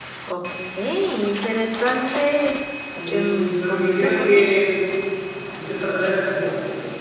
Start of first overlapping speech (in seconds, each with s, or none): 3.0 s